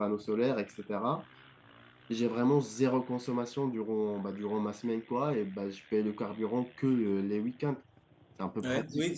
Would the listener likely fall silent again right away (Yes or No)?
No